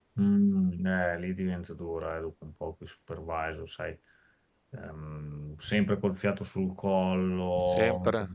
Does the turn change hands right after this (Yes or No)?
No